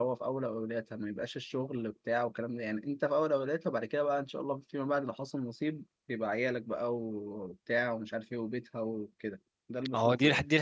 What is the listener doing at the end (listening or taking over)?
taking over